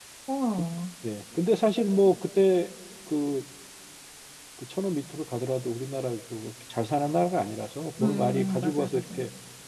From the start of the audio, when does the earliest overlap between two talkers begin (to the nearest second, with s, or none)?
8 s